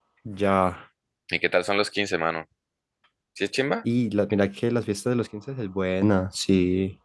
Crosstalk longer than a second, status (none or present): none